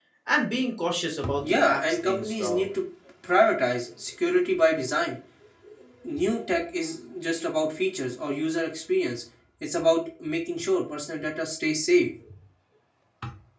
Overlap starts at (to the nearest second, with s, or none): 1 s